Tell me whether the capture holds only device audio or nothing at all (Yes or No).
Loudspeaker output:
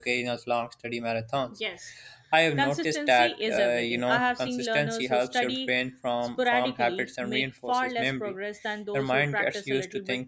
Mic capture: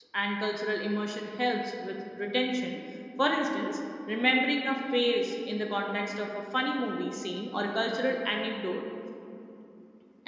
No